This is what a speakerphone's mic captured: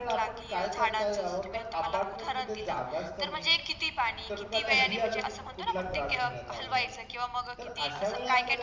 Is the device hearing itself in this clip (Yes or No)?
Yes